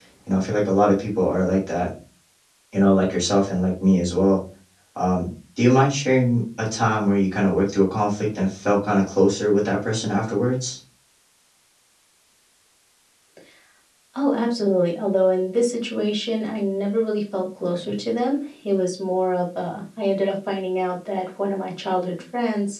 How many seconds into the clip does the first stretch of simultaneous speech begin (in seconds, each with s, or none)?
none